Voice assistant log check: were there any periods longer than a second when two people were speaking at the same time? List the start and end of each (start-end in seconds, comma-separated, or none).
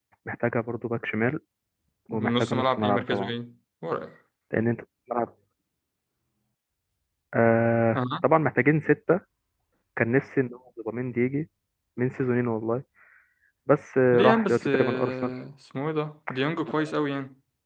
2.1-3.3, 14.1-15.3